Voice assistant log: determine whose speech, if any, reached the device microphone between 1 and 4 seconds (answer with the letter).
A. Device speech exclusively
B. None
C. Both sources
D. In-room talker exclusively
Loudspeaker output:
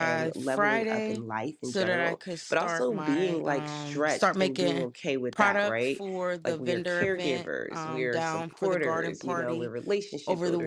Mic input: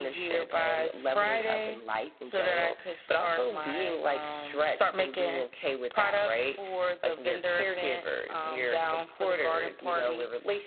A